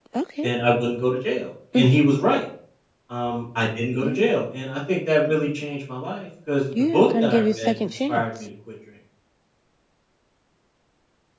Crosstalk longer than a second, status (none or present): present